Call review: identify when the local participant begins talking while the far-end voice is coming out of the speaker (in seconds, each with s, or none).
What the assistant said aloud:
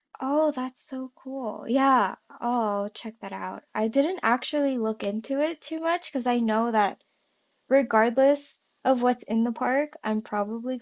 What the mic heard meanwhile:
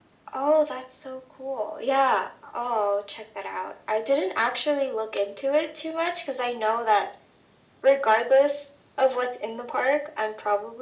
none